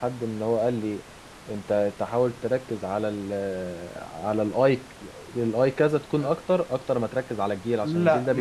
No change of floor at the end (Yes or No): No